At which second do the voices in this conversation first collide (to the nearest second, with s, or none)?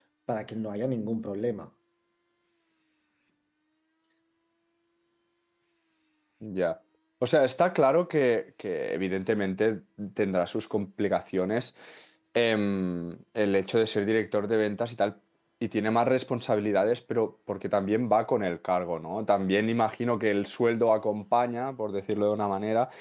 none